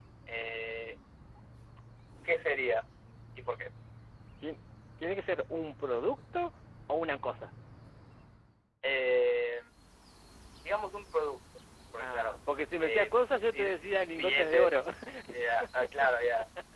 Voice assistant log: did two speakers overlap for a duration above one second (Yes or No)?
Yes